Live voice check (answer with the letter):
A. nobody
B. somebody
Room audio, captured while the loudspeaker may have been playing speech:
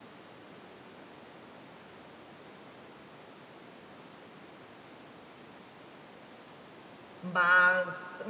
B